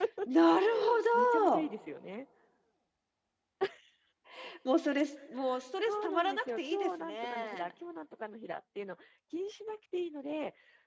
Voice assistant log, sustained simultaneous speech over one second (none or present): present